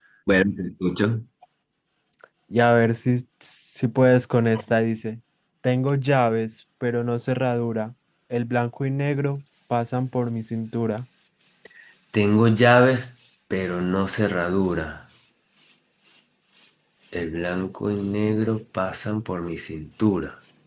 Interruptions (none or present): none